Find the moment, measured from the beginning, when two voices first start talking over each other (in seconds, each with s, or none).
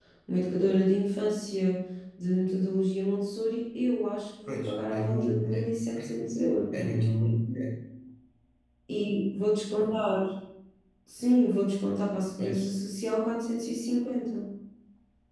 4.5 s